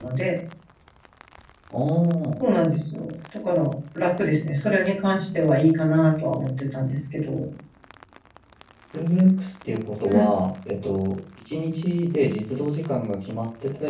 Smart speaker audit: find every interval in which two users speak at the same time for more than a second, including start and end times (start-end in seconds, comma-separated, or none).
none